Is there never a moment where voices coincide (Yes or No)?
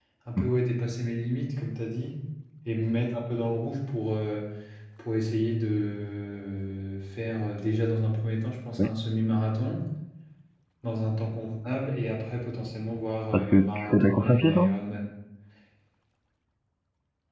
No